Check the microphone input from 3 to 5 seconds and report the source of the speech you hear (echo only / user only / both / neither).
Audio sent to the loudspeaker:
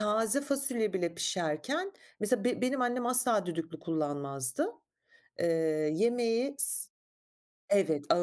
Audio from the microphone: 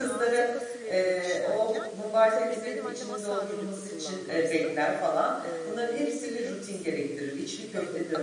both